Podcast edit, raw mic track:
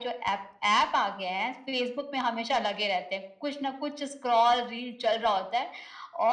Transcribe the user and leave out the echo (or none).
none